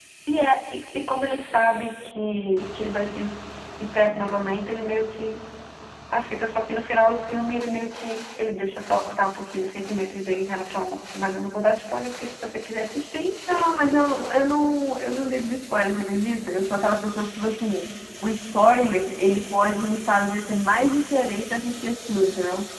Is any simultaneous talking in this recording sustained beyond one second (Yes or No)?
No